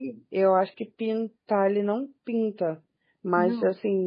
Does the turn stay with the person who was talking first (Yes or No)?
Yes